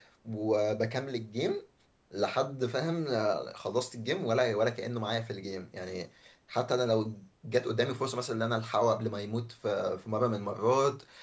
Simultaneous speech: No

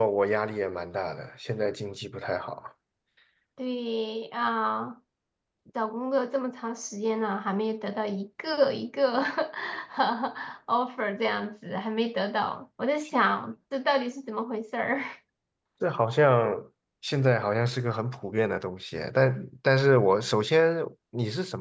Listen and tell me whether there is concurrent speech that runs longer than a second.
No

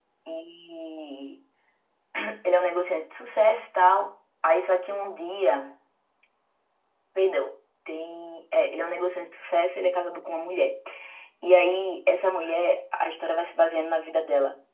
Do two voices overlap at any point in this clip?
No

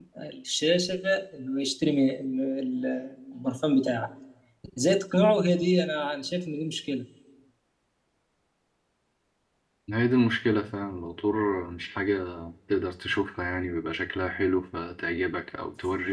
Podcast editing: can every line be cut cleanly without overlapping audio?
Yes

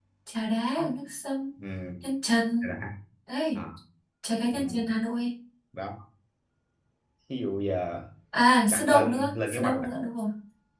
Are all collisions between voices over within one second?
No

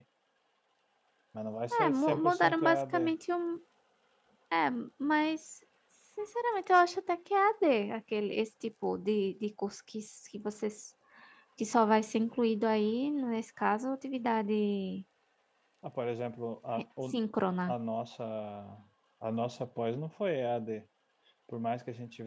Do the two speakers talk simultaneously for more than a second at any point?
Yes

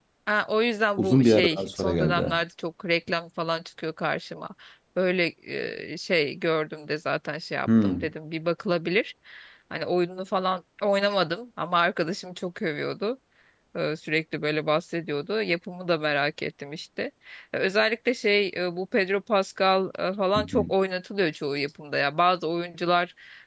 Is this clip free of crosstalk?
No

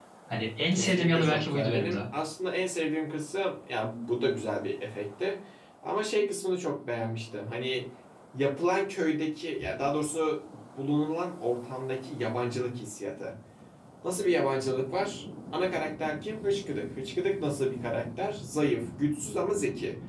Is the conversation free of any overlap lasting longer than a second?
No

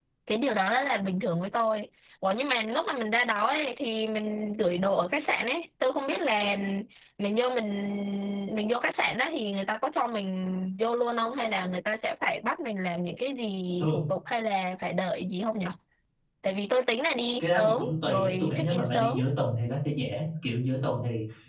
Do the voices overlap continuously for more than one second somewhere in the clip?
Yes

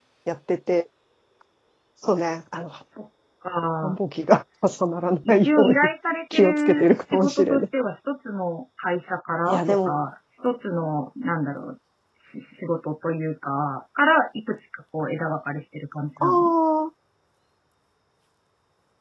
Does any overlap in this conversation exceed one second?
Yes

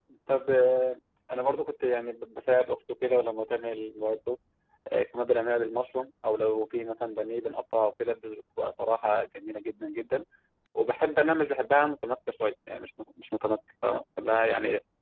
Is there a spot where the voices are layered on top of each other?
No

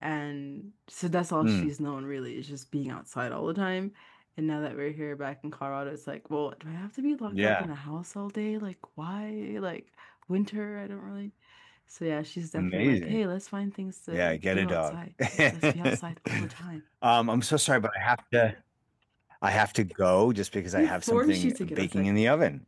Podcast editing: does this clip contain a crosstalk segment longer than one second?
Yes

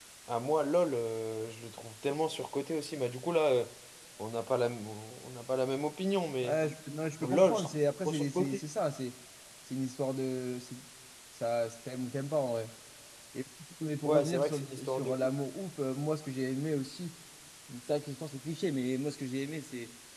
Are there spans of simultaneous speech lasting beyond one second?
Yes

